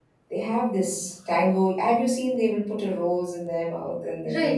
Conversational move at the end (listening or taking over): taking over